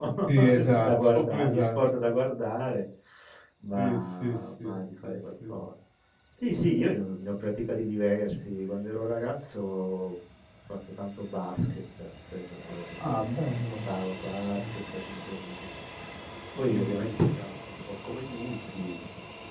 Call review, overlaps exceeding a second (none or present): present